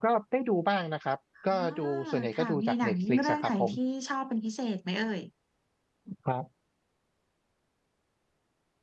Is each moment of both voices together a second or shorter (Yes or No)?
No